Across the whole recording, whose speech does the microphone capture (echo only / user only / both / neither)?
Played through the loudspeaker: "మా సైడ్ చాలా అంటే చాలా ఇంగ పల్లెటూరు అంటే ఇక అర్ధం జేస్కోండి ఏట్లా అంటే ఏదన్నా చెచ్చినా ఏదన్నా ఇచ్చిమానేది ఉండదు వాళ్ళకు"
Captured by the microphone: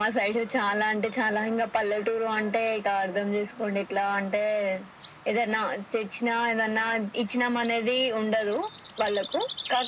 echo only